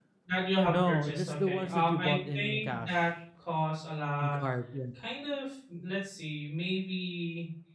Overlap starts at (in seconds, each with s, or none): 0.7 s